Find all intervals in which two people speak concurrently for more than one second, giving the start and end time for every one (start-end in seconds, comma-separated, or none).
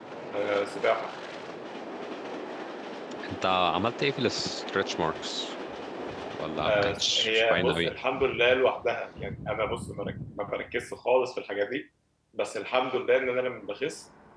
6.7-7.9